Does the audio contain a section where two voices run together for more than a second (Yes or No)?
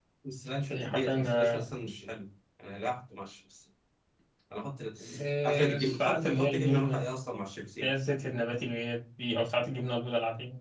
Yes